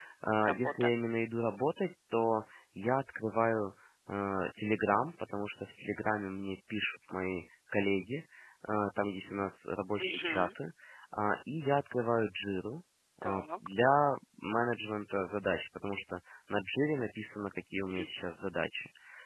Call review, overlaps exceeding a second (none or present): none